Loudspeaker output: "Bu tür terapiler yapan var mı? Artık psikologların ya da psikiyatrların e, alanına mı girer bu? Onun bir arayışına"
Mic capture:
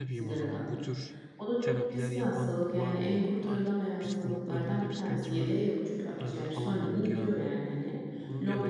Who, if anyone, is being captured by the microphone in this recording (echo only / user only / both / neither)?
both